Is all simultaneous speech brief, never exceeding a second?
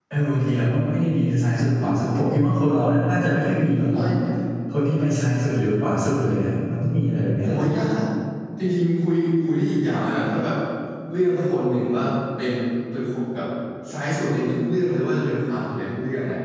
Yes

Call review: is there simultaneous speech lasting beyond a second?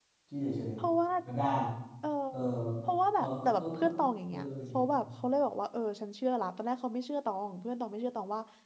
Yes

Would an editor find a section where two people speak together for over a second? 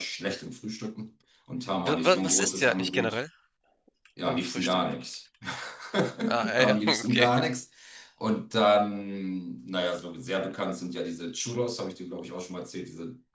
Yes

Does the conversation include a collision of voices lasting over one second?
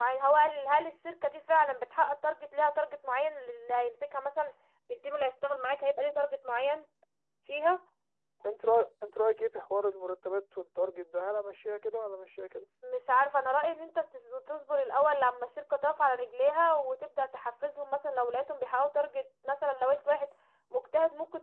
No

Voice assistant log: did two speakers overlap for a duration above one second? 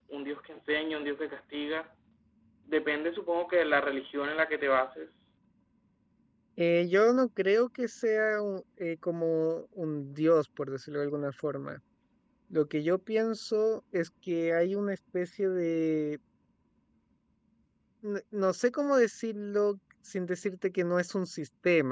No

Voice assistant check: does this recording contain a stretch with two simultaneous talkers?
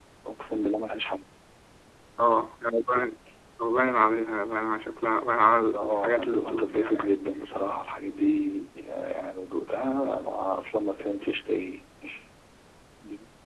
Yes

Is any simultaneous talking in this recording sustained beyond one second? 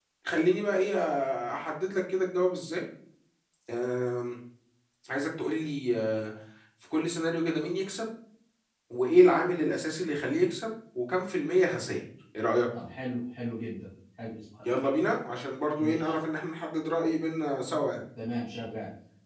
No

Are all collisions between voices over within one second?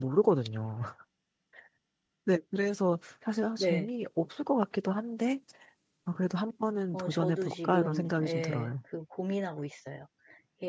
No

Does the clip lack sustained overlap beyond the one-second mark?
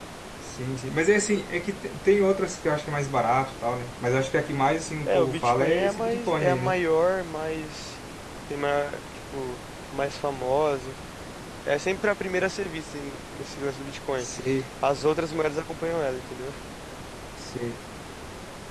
No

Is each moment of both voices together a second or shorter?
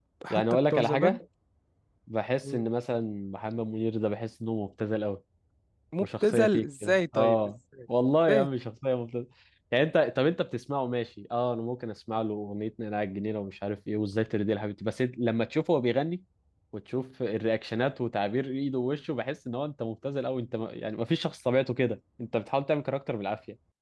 No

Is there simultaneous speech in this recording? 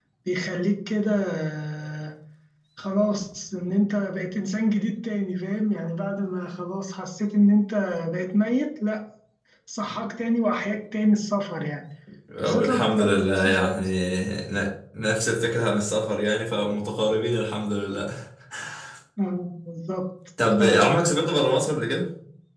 Yes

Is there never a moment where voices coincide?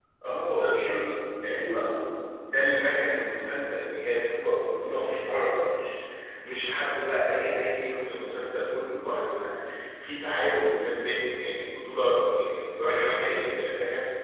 No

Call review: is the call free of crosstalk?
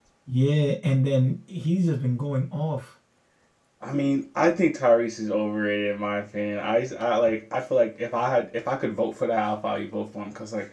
Yes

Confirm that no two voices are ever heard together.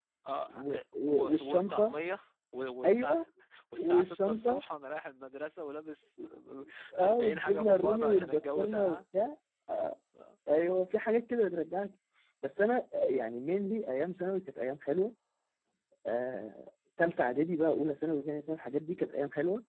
No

